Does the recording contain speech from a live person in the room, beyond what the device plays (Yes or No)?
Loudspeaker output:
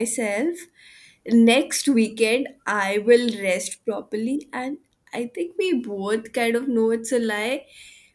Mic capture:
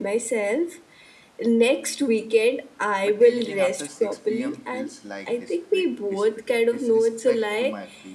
Yes